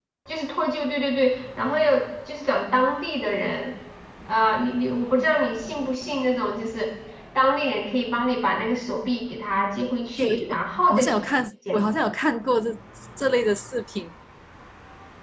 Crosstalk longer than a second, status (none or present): none